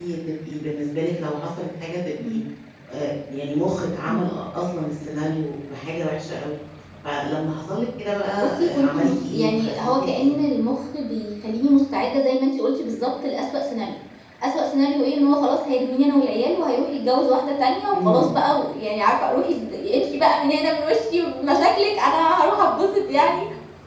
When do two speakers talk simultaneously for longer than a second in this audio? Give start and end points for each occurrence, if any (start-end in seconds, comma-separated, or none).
8.4-10.3